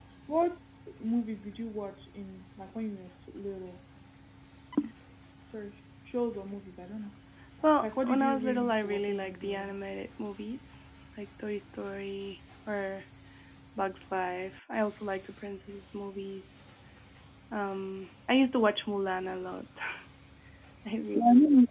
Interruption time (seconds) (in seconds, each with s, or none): 7.8 s